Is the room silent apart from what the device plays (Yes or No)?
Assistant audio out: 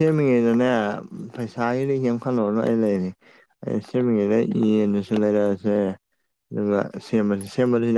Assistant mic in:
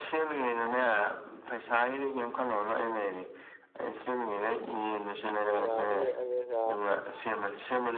No